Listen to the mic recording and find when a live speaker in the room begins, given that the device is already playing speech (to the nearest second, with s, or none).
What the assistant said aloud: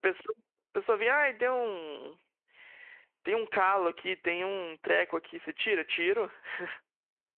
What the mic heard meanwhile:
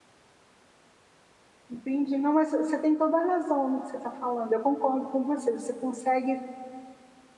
2 s